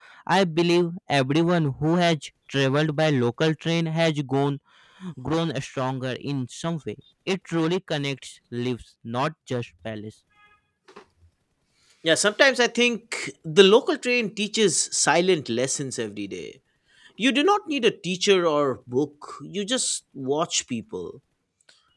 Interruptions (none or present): none